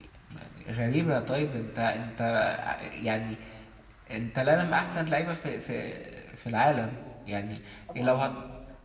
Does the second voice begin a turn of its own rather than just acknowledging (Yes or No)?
No